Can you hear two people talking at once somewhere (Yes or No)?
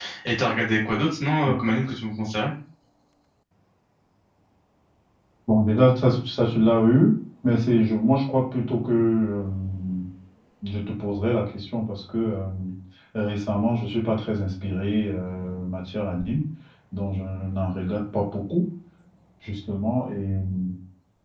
No